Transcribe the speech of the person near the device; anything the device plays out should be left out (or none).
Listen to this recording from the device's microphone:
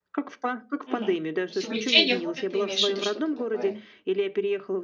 Мгм. То есть, увлечение, хобби, ты имеешь в виду что-то такое?